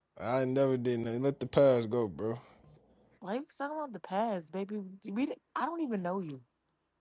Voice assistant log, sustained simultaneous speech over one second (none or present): none